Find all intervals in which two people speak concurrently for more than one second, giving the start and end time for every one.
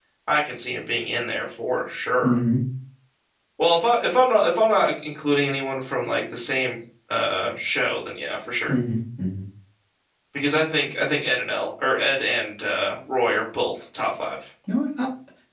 none

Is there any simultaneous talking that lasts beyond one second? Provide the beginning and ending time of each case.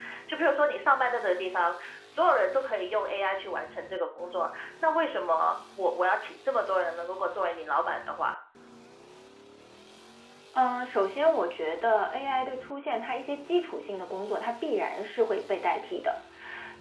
none

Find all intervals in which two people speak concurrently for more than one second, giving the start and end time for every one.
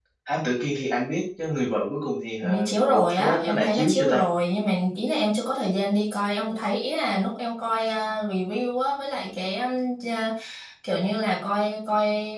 2.4-4.2

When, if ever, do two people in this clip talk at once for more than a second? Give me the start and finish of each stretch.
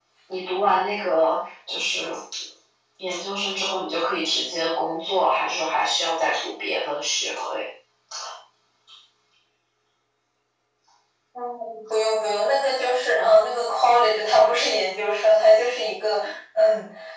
none

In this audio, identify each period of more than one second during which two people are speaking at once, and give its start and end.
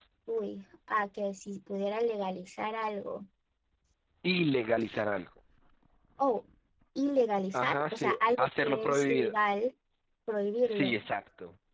7.5-9.3

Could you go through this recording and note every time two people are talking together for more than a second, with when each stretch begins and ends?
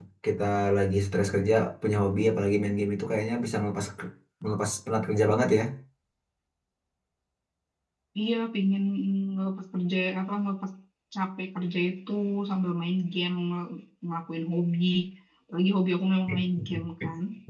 none

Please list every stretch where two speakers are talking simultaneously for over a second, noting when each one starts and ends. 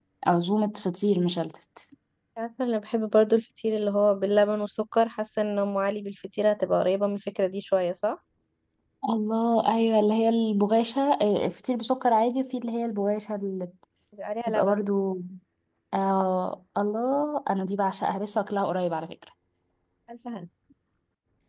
none

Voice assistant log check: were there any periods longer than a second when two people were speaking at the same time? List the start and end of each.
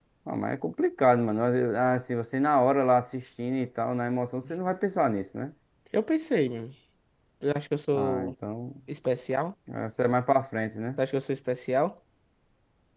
none

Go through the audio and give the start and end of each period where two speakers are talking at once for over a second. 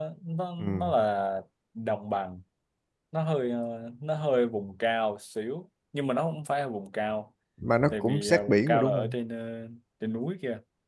7.9-9.2

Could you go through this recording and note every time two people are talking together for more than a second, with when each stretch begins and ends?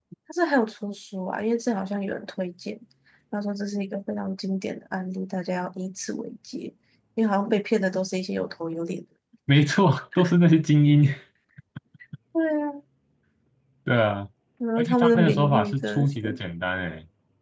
14.8-16.4

